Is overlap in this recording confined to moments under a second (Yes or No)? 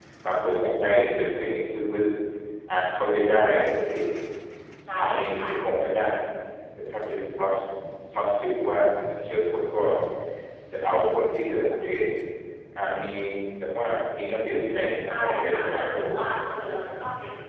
No